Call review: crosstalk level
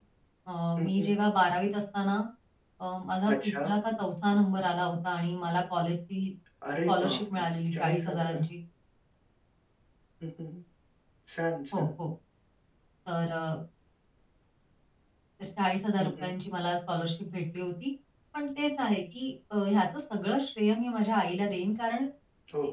present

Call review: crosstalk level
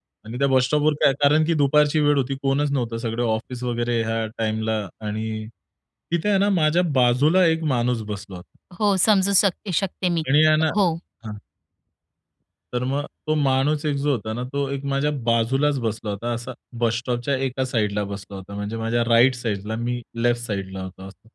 none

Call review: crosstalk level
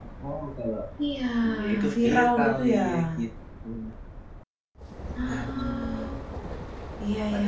present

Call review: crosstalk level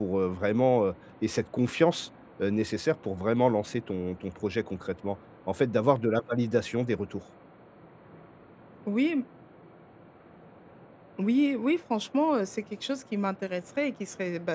none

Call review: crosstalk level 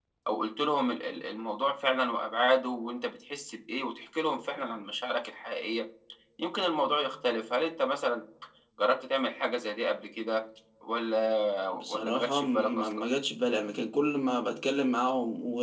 present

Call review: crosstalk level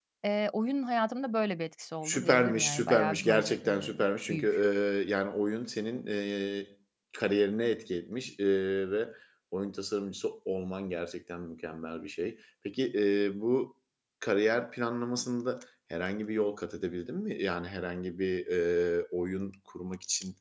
present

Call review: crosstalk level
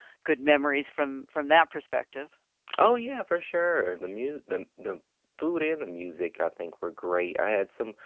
none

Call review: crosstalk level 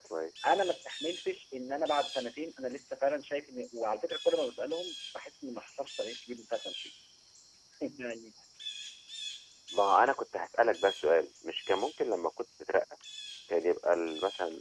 none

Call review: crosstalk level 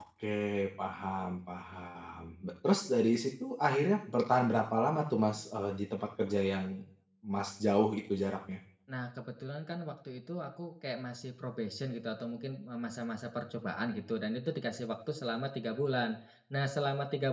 none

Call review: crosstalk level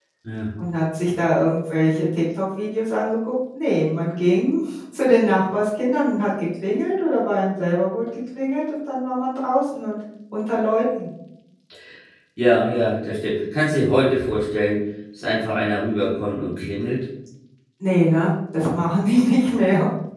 none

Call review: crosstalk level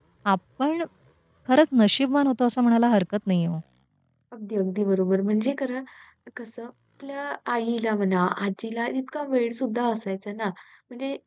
none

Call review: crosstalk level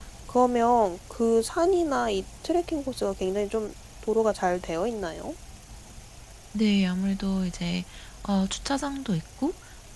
none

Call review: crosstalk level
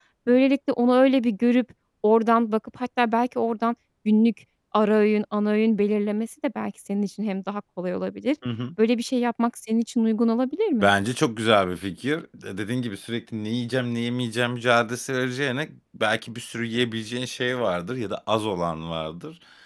none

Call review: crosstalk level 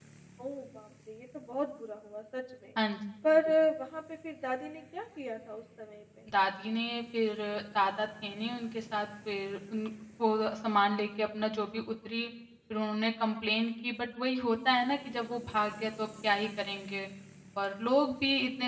none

